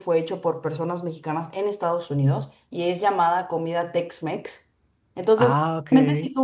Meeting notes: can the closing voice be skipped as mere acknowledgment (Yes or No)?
Yes